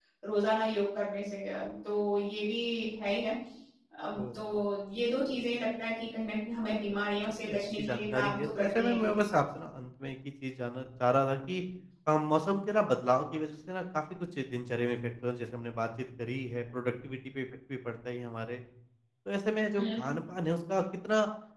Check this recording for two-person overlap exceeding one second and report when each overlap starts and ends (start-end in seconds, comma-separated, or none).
7.4-9.1